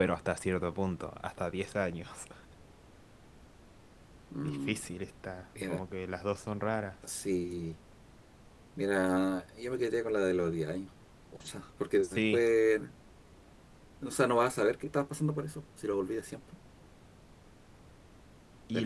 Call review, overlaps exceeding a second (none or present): none